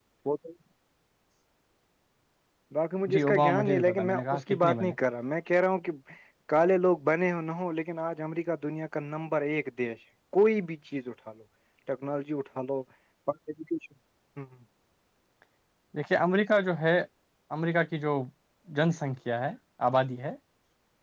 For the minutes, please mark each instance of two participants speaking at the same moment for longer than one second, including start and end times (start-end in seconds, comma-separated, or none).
3.1-4.9